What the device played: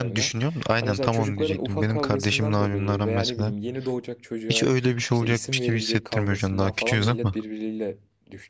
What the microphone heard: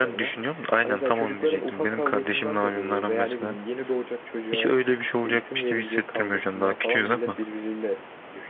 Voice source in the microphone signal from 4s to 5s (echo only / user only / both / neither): echo only